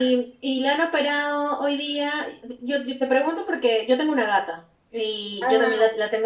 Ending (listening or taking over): listening